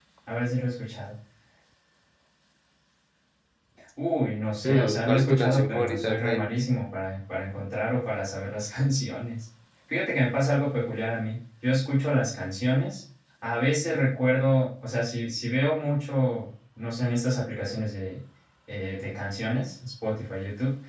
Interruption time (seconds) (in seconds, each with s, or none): 4.6 s